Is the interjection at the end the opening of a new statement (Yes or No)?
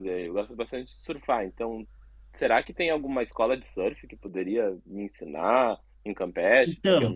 Yes